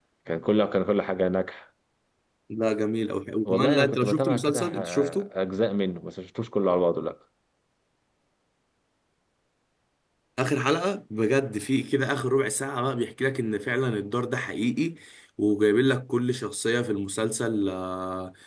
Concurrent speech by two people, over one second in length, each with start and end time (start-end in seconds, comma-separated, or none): 3.5-5.2